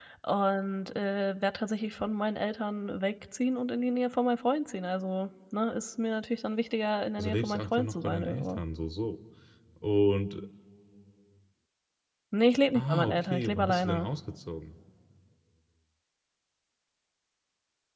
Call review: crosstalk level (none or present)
present